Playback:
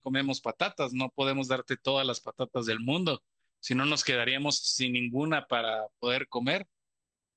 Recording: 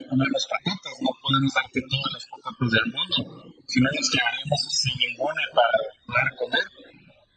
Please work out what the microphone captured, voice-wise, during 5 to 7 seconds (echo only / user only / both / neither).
echo only